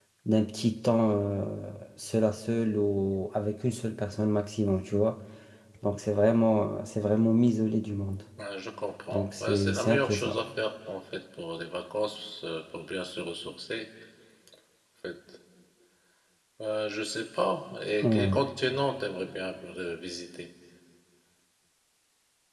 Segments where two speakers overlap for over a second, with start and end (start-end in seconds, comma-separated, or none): 9.1-10.4